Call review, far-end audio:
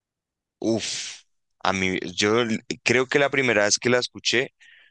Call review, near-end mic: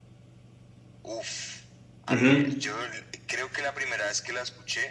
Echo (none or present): present